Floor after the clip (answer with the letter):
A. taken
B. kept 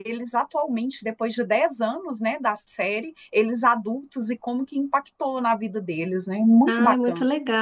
A